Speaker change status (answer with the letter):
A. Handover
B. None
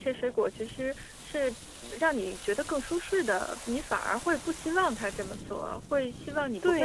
A